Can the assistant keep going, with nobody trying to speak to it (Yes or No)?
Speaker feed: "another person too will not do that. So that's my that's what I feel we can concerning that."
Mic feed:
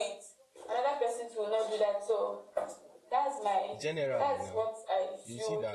No